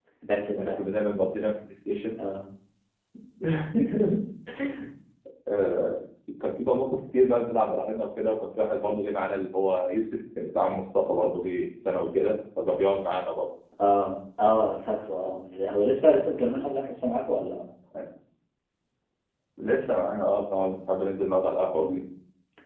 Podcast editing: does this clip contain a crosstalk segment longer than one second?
No

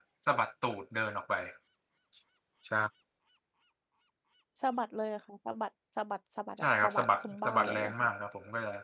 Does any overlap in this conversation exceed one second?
Yes, from 6.6 s

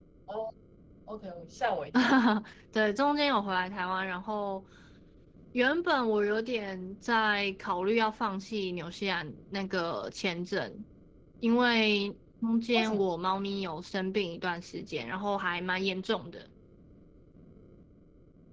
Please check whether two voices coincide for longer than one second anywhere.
No

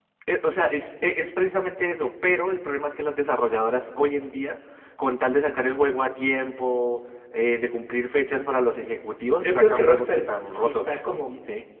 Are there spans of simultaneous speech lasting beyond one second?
Yes, from 9.4 s

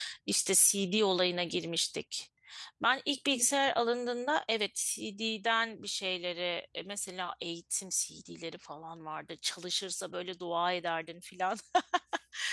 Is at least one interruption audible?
No

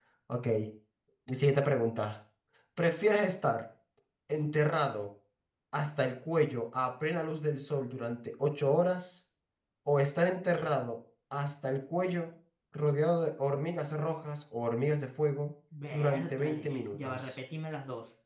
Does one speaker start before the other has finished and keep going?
Yes, from 15.7 s

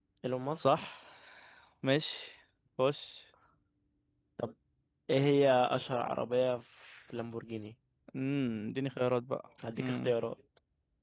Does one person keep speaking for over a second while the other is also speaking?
No

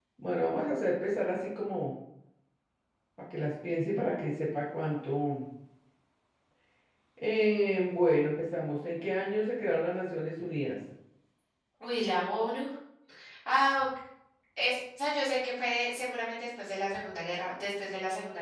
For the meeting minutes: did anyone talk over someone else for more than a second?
No

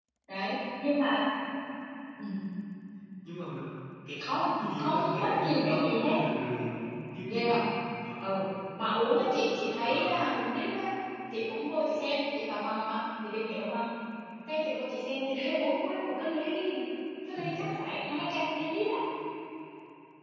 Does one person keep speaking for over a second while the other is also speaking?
Yes, from 4.8 s

